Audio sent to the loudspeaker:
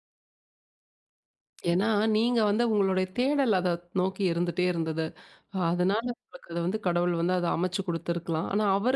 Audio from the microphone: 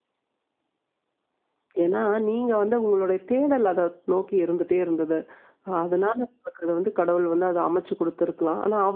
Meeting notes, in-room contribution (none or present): none